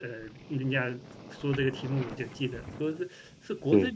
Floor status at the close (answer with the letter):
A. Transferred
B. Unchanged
B